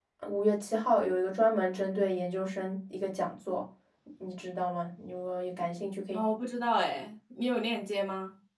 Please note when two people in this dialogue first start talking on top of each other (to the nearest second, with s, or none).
none